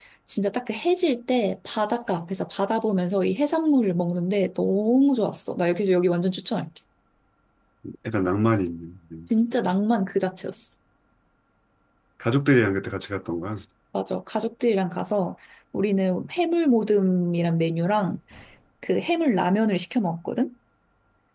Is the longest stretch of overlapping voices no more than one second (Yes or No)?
Yes